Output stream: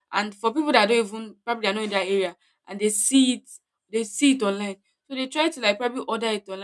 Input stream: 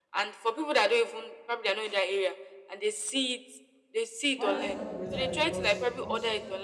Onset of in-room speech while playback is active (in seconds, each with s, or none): 4.4 s